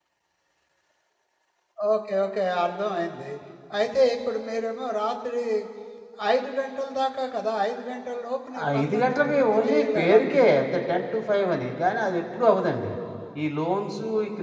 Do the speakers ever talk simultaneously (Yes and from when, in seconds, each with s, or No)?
Yes, from 8.5 s